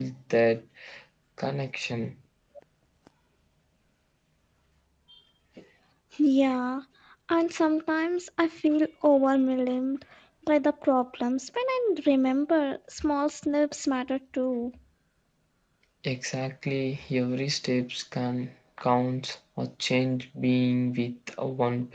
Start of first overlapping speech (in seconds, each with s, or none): none